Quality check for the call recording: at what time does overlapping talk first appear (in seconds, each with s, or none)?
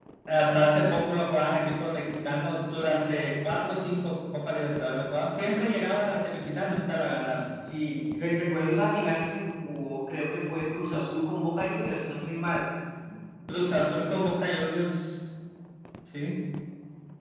none